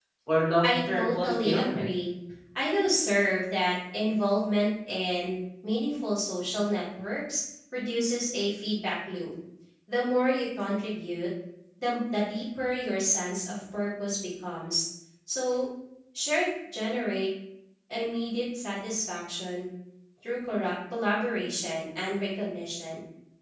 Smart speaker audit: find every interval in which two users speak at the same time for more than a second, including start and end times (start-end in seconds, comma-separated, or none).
0.6-1.9